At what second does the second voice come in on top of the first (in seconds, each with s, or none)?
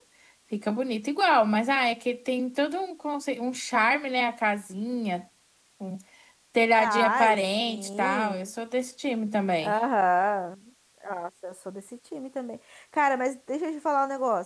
6.7 s